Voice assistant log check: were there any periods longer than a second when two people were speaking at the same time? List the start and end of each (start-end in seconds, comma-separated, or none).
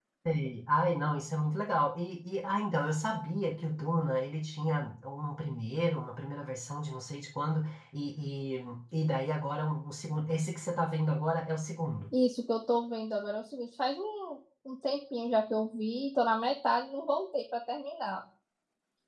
none